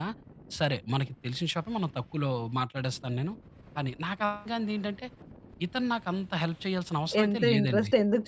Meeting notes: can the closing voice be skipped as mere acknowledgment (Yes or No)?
No